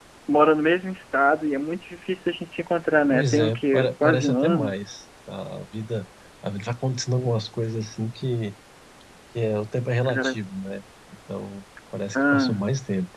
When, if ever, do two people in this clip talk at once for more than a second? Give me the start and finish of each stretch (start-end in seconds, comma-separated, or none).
3.1-4.8